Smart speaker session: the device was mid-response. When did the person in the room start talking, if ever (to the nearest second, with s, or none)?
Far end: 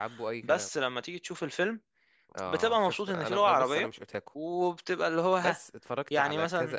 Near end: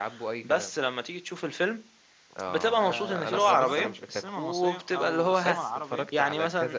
3 s